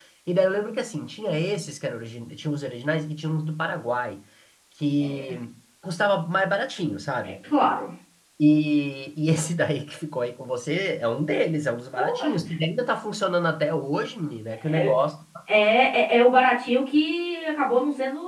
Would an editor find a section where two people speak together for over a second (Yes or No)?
No